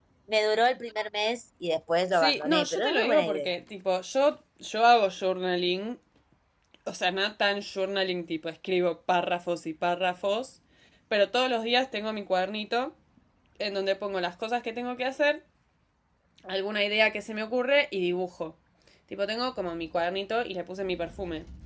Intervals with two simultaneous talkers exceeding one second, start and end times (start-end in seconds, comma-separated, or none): 2.1-3.5